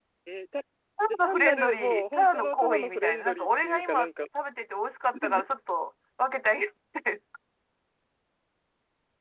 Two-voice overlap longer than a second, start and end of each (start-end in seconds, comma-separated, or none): 1.1-4.1